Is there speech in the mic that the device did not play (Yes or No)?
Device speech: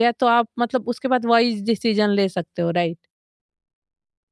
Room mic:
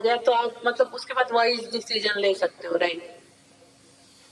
No